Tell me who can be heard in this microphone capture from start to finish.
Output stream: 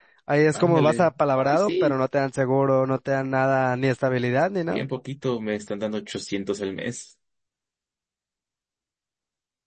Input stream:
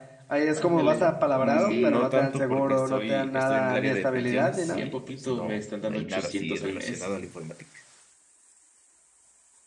both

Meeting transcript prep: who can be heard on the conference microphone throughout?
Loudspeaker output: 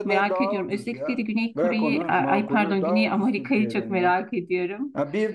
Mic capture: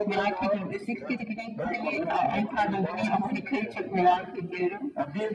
echo only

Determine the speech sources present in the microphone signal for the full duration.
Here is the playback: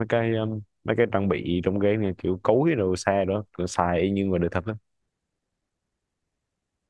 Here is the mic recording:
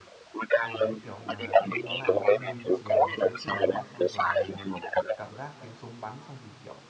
both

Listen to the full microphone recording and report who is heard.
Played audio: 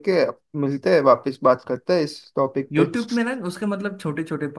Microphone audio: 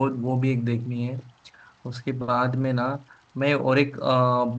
user only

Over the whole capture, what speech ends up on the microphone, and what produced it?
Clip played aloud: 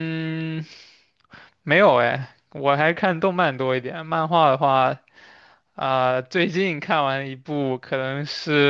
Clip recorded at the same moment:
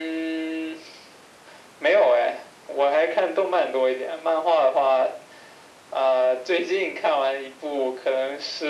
echo only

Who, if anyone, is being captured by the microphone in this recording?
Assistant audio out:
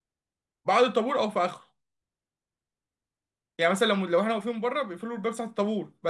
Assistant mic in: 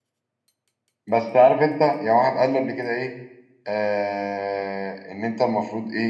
user only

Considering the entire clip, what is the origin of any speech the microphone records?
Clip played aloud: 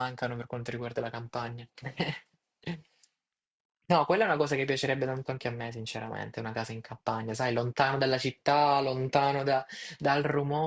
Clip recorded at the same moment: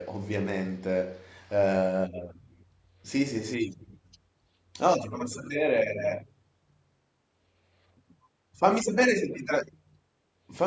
user only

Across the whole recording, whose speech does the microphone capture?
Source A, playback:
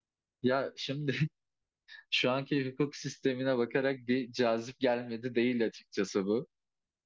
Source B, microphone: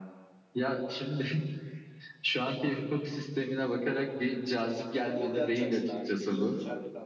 both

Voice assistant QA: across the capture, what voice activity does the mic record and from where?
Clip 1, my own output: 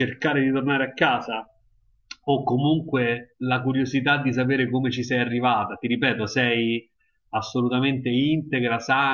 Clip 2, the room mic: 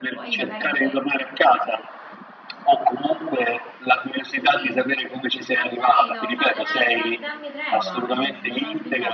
both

